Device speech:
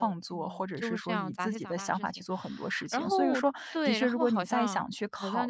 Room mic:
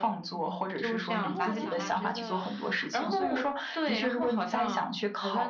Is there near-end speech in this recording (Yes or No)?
Yes